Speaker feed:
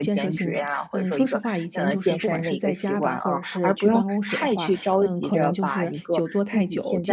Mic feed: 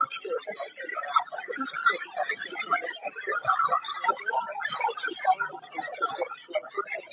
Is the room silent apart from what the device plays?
Yes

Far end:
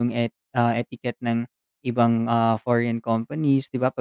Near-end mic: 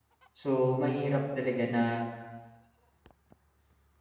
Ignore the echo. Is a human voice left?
Yes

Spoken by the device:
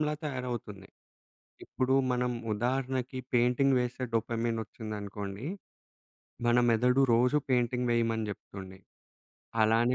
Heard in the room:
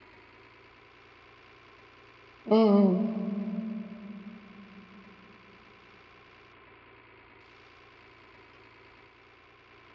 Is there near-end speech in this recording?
Yes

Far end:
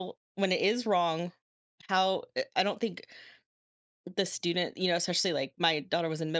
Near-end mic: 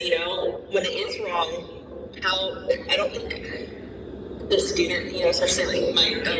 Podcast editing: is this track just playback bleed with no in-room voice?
Yes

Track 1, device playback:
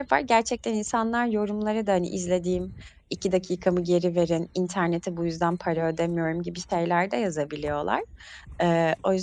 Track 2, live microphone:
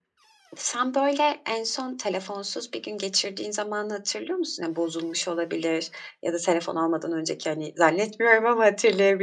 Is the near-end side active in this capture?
Yes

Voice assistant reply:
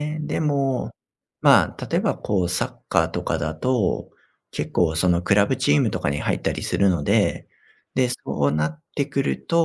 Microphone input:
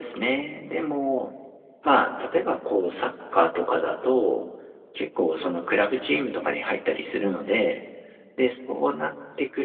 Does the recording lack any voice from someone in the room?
Yes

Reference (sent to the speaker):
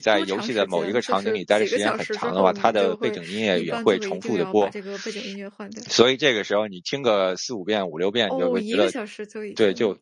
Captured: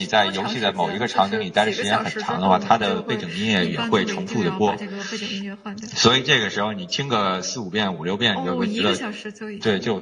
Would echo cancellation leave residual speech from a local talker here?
No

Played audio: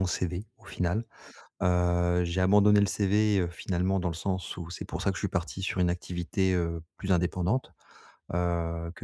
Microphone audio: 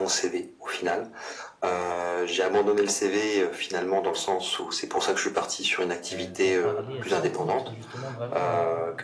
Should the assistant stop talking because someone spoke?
Yes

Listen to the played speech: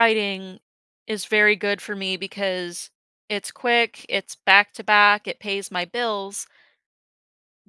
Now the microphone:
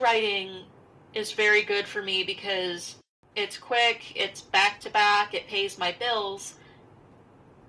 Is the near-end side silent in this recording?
Yes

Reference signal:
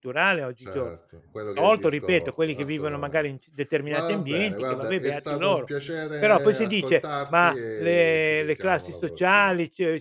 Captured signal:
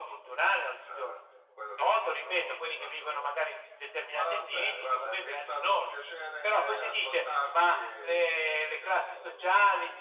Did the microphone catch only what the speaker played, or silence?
Yes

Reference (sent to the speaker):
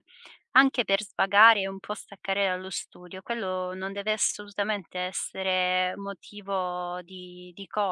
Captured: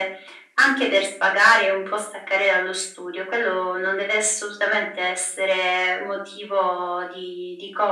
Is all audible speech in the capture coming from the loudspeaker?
Yes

